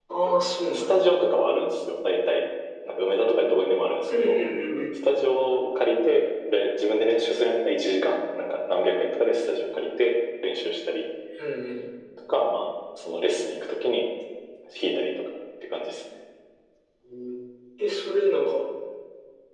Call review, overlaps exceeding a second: none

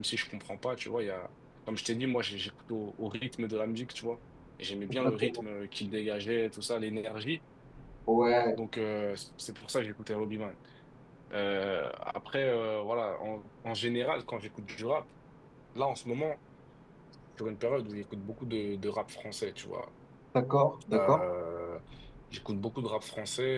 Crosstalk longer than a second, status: none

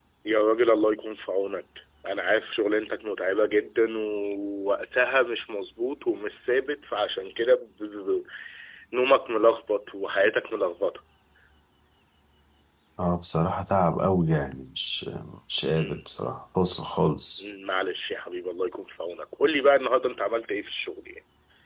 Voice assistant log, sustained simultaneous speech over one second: none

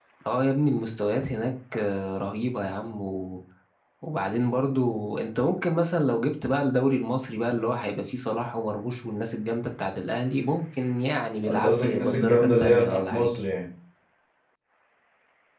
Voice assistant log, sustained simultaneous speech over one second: present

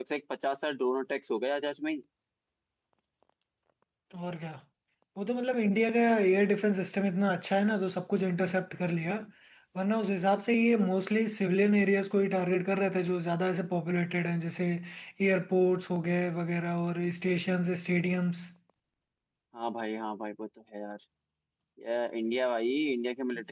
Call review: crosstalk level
none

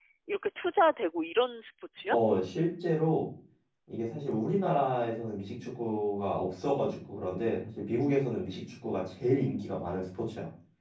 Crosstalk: none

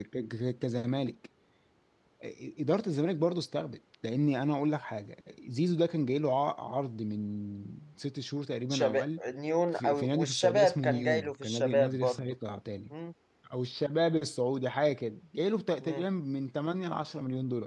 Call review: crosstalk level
present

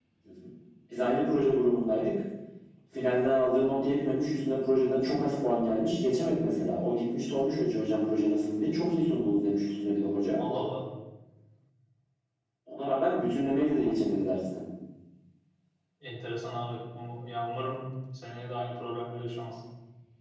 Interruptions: none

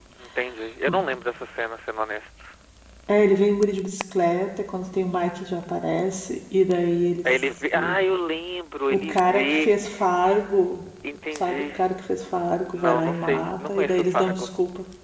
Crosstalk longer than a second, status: present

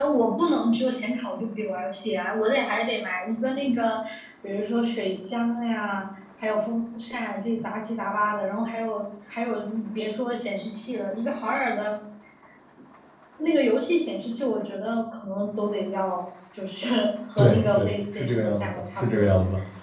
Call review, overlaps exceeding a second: present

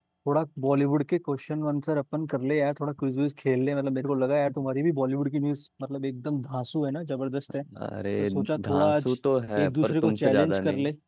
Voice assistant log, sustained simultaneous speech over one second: present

